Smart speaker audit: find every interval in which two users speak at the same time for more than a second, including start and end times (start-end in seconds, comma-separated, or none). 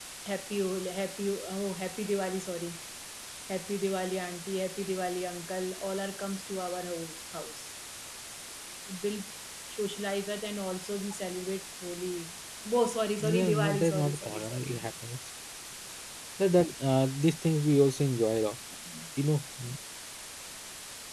13.2-14.8